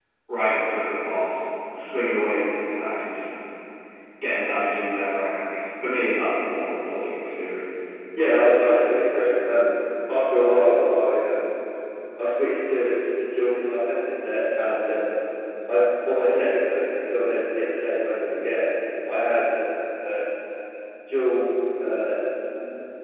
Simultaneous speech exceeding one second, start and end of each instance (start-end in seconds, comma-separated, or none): none